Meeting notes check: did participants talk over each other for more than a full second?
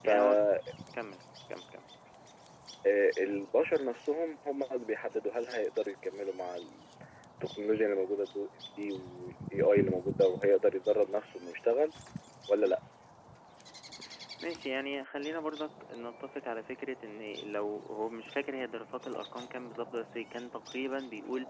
No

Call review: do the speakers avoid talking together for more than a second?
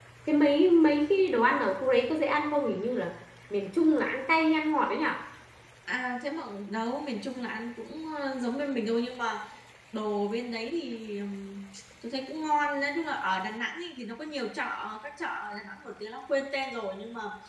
Yes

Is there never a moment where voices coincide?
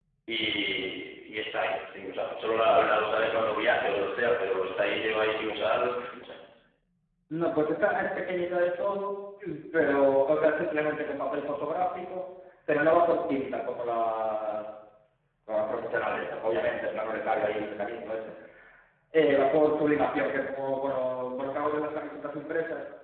Yes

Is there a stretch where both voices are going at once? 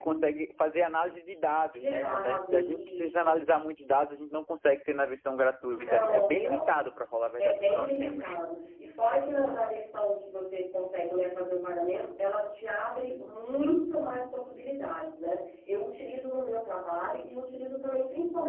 Yes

